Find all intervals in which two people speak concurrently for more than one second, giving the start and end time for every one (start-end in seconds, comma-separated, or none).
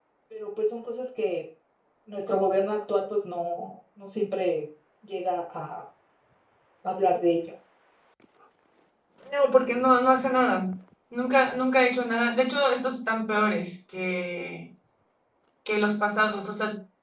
none